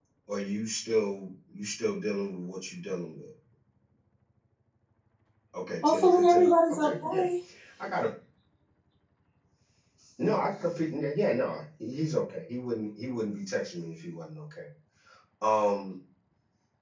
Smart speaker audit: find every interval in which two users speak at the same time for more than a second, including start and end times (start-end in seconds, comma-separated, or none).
5.8-7.2